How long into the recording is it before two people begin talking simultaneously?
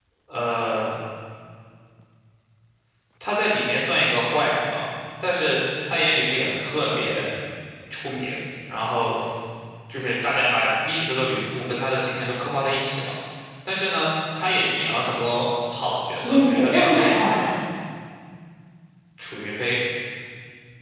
16.2 s

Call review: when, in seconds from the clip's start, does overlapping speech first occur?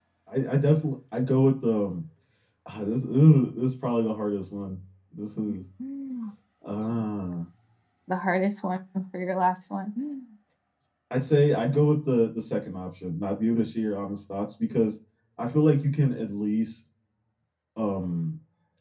none

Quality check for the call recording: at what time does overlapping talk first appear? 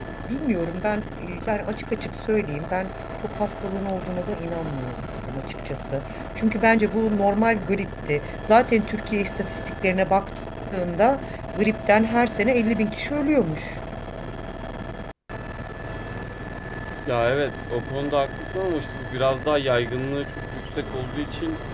none

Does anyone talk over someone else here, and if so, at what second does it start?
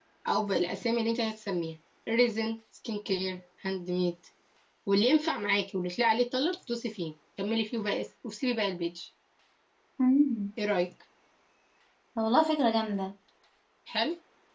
none

